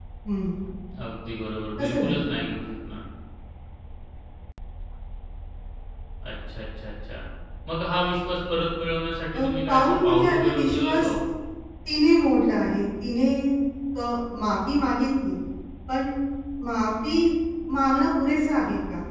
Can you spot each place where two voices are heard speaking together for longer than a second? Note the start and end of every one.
9.3-11.1

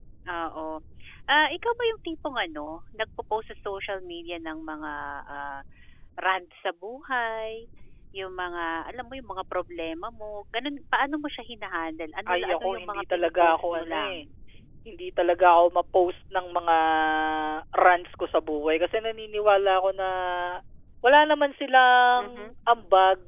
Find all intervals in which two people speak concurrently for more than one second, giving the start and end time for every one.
12.3-14.2

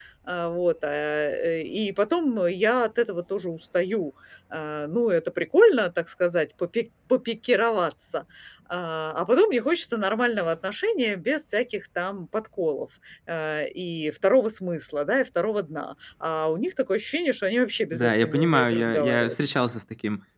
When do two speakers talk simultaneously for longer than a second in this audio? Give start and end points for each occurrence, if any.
17.9-19.4

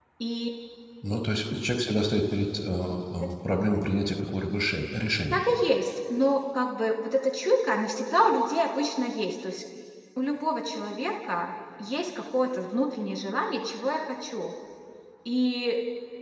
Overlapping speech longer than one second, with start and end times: none

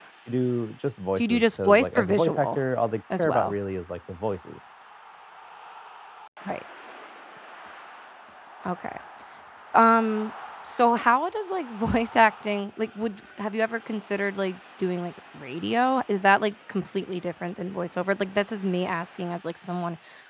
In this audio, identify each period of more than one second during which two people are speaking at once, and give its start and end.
1.2-2.6

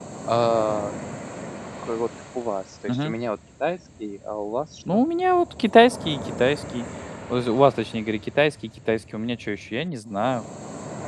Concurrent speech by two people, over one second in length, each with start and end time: none

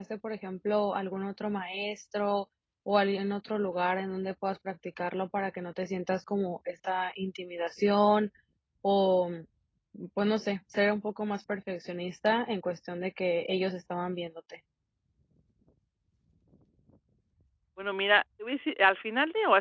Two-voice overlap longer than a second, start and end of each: none

